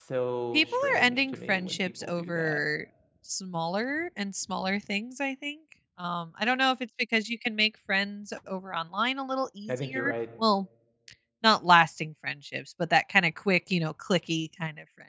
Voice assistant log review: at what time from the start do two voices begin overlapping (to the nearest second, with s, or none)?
1 s